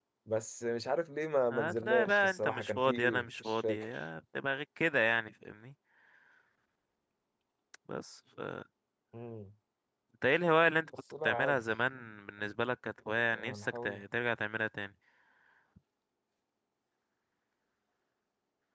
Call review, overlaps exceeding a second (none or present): present